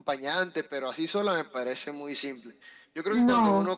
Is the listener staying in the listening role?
Yes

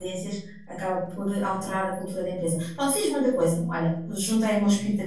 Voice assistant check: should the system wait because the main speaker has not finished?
No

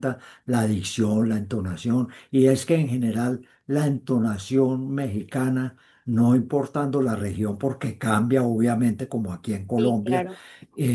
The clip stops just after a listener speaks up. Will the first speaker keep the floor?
Yes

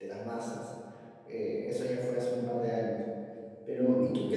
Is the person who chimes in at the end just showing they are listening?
Yes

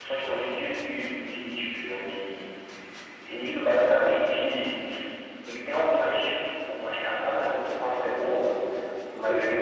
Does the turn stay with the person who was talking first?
Yes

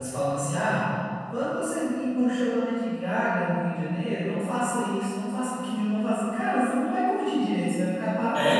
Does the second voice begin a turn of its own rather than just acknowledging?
Yes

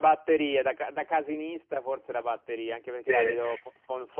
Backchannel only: Yes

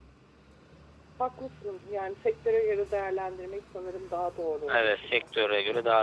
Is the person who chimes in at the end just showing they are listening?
No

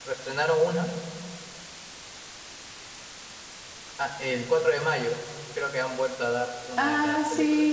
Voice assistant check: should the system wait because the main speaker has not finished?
No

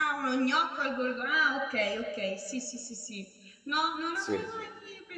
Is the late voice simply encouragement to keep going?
Yes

